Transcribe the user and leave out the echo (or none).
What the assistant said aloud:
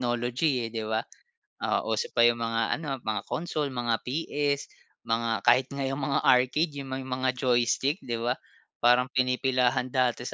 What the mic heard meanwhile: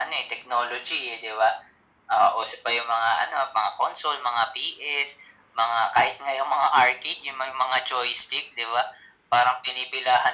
none